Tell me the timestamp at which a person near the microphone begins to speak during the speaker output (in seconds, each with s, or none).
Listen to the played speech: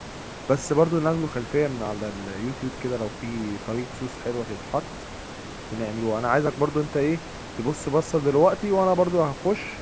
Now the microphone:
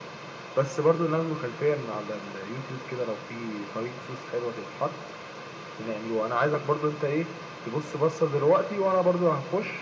none